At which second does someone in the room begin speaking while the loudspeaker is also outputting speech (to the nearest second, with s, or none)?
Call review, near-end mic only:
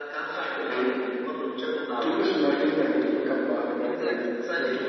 4 s